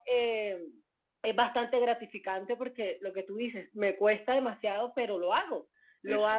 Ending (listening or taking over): listening